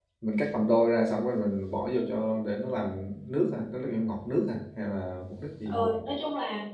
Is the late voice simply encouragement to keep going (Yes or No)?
No